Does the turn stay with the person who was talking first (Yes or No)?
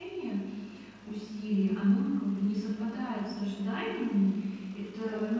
Yes